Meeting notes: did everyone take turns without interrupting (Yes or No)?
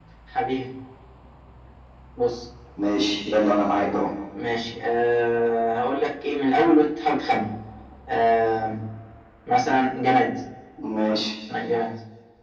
Yes